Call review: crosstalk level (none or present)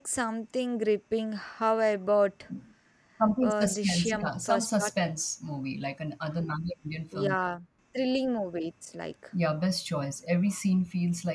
present